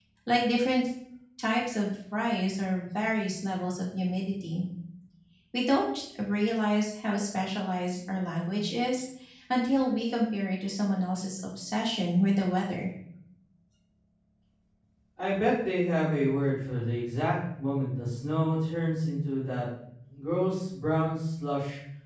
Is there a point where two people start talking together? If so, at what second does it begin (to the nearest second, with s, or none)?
none